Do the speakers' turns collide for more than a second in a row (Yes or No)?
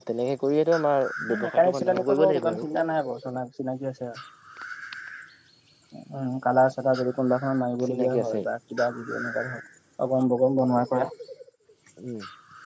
Yes